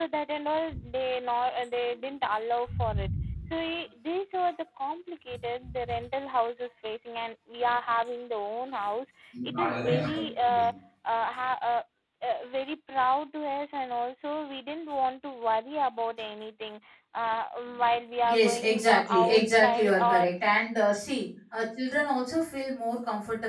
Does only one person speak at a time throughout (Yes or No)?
No